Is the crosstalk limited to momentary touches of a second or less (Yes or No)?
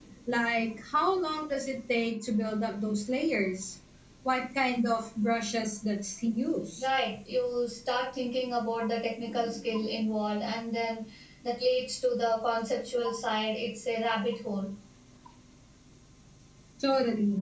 Yes